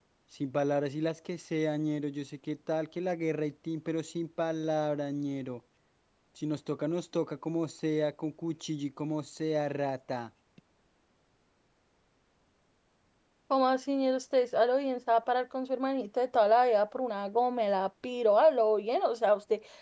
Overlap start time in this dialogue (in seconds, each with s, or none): none